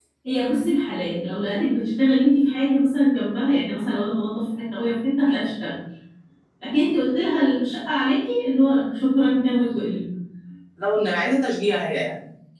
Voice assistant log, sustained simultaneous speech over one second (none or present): none